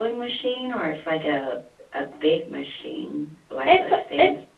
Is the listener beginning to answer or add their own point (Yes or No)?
Yes